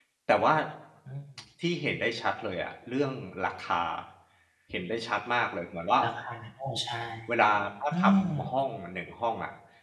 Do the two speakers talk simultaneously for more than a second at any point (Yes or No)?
No